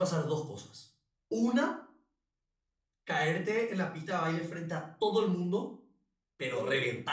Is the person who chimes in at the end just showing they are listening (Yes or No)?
Yes